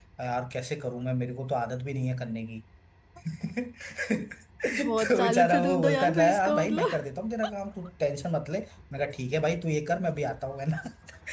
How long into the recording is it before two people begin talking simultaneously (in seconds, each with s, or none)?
4.7 s